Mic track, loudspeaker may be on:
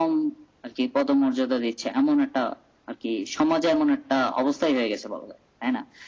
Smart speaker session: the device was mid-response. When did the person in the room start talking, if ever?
none

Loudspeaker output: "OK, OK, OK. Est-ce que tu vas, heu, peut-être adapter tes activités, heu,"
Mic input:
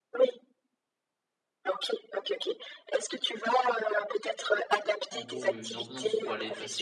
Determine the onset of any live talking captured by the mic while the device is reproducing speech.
5.1 s

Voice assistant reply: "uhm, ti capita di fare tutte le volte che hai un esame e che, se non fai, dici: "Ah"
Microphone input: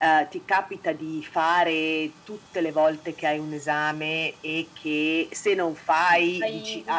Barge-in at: 6.1 s

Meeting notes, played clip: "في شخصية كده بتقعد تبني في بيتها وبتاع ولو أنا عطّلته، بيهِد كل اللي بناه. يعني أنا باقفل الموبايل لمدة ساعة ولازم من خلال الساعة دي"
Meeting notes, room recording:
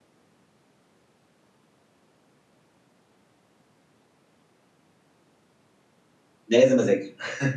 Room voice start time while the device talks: 6.5 s

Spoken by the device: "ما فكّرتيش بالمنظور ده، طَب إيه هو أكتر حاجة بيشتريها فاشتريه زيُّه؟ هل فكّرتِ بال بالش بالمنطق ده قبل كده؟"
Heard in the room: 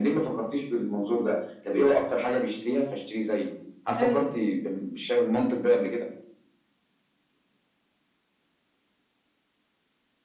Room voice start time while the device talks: 4.0 s

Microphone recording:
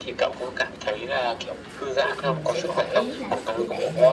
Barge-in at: 2.2 s

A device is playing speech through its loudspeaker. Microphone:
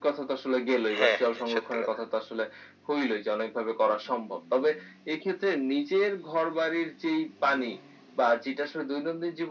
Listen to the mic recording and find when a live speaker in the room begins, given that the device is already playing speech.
1.0 s

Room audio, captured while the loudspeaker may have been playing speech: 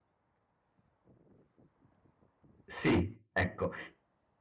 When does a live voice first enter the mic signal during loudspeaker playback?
2.7 s

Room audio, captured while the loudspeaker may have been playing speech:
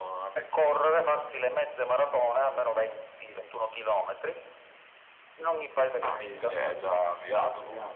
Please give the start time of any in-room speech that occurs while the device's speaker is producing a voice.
5.9 s

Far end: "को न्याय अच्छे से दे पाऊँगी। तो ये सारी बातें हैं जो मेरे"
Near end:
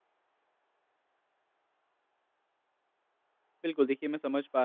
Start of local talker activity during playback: 3.6 s

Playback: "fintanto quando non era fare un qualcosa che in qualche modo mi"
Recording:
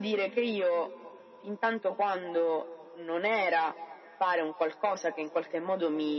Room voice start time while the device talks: none

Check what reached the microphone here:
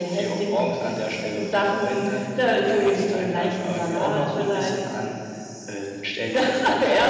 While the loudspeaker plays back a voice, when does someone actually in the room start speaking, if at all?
none

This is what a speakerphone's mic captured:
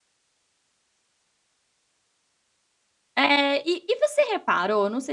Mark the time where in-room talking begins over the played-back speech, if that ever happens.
3.2 s

